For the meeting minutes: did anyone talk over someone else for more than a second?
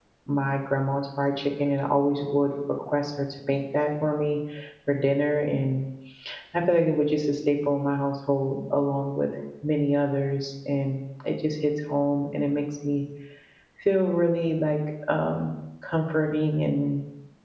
No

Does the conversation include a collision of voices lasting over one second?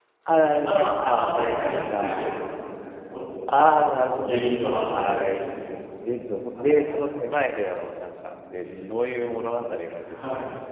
Yes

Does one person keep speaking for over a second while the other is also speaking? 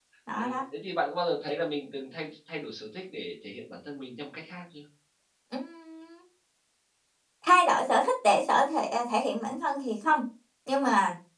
No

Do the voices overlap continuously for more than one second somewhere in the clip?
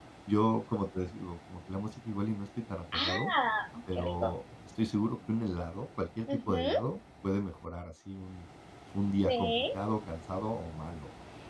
No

